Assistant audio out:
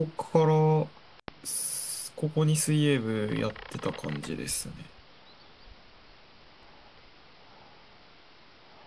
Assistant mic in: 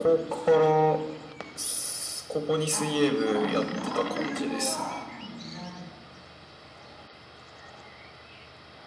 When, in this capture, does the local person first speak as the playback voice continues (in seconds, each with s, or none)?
2.7 s